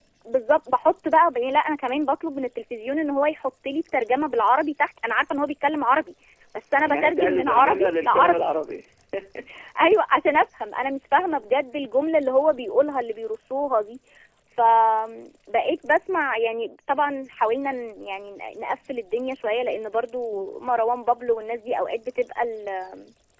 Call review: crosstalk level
present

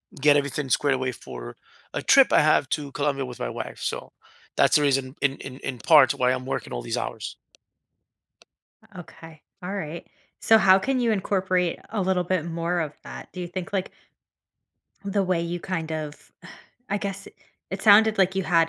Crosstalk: none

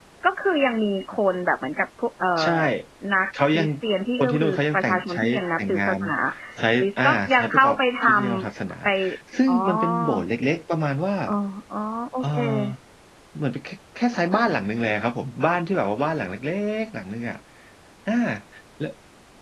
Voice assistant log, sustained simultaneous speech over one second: present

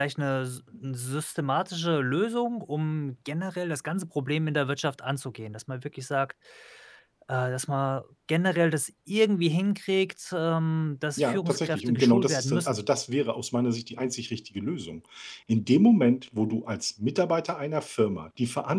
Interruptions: present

